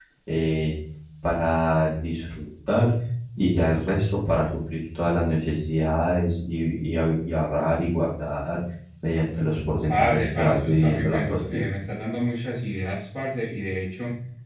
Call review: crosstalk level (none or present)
present